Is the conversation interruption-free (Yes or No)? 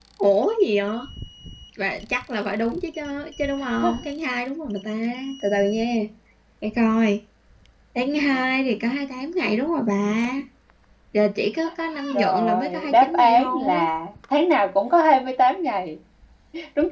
No